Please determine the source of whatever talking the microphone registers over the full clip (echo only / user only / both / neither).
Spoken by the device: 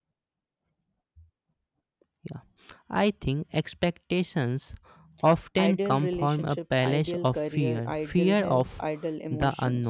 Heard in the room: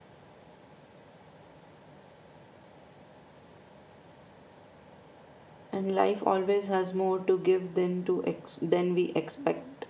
user only